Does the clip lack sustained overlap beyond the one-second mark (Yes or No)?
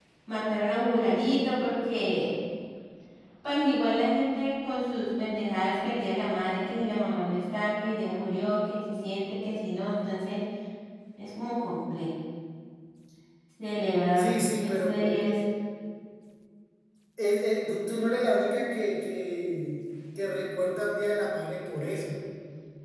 No